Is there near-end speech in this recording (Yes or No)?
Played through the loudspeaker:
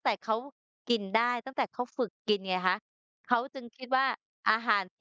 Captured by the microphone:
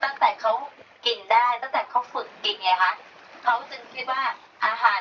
No